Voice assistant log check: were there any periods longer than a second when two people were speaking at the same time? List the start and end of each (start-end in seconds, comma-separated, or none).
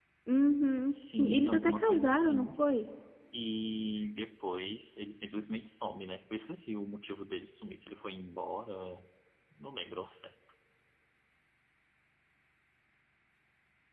0.9-2.5